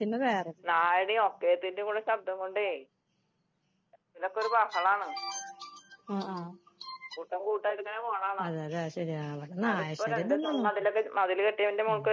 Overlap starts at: 9.6 s

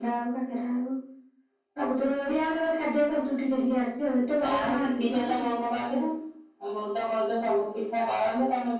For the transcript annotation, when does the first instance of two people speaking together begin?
4.4 s

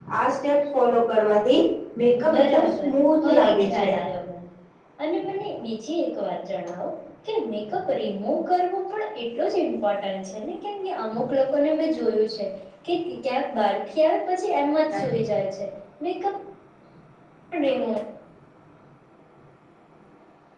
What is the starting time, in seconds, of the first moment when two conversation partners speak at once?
2.4 s

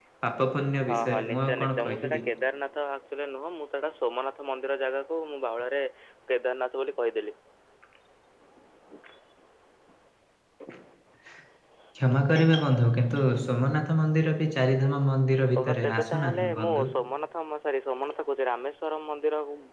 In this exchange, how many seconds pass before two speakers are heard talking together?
0.8 s

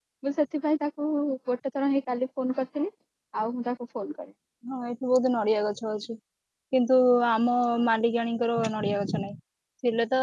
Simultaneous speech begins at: none

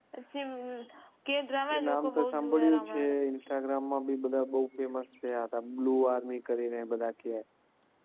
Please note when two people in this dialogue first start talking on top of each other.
1.8 s

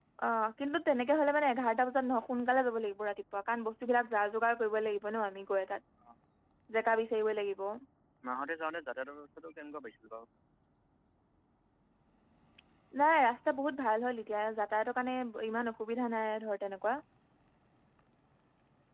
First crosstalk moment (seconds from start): none

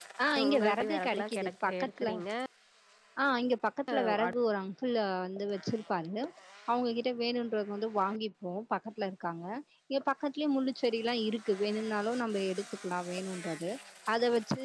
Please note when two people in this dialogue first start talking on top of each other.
0.5 s

